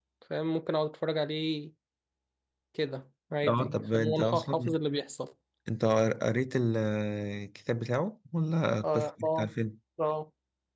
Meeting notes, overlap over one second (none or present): present